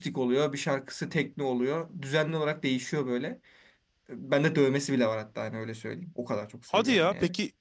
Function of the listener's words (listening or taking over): taking over